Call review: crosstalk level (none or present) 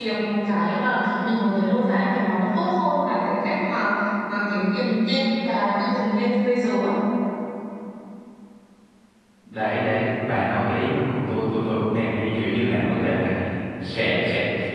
none